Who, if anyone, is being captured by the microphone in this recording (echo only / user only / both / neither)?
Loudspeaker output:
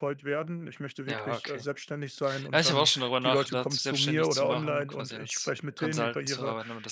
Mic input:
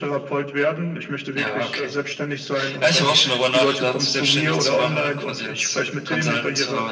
echo only